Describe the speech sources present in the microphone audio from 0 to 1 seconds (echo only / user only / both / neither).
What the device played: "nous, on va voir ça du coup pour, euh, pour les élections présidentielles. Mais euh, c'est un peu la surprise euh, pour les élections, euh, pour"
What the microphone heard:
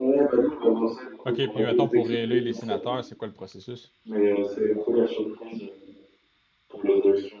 echo only